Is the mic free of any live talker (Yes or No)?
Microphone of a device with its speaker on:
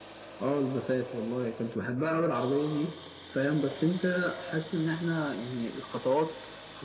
Yes